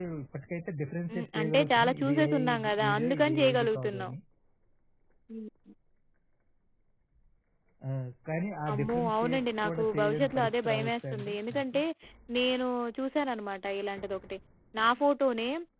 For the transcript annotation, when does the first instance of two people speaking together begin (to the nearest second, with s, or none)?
1 s